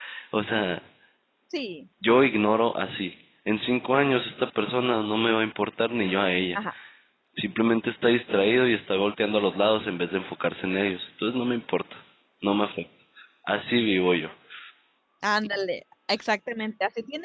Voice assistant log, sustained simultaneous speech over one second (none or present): none